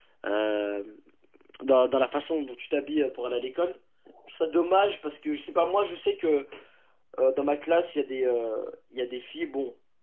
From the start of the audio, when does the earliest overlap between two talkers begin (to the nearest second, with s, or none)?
none